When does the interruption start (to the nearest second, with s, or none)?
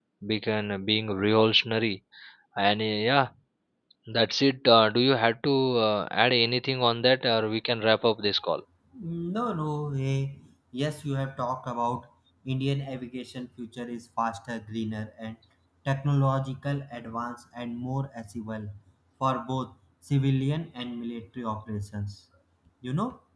none